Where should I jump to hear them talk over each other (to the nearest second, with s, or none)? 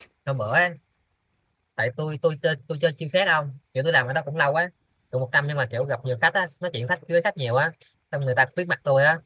none